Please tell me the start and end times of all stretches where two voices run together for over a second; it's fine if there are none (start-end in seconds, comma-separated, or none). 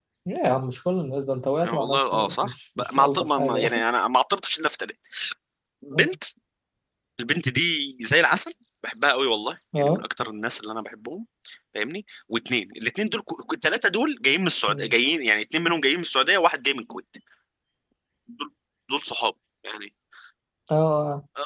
1.6-3.8